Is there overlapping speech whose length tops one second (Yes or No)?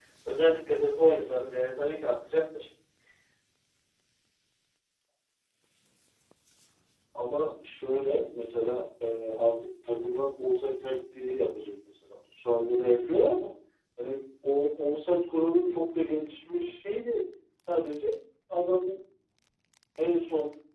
No